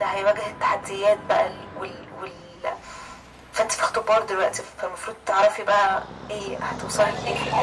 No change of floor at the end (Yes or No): No